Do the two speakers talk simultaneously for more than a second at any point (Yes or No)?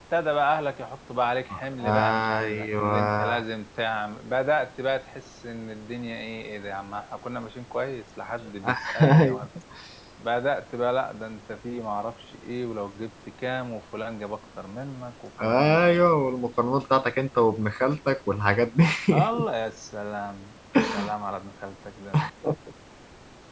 Yes